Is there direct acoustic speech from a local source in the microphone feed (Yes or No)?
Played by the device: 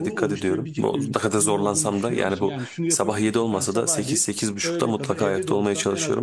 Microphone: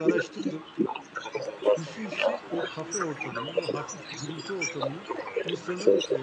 Yes